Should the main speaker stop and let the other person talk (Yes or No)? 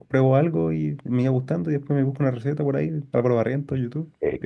Yes